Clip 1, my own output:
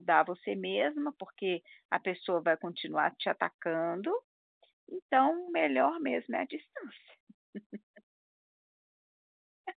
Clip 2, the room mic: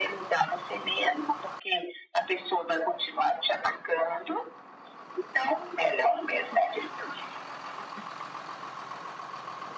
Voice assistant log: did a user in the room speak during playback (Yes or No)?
No